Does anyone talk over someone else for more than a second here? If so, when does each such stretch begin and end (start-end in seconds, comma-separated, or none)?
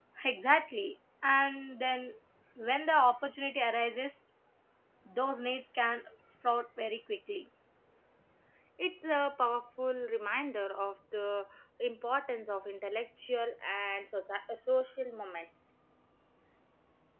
none